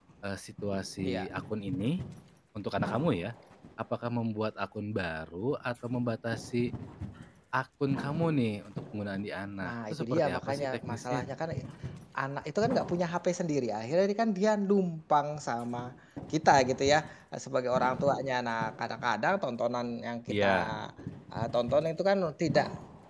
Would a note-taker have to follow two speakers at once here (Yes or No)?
Yes